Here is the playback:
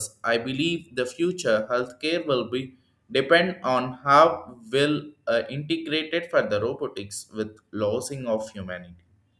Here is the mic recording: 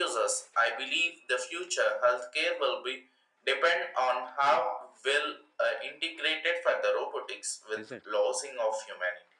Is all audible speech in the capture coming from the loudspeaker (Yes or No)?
No